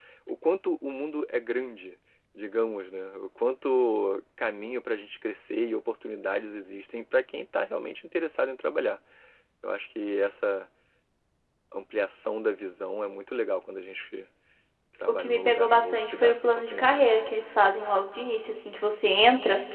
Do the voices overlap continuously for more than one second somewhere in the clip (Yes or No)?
Yes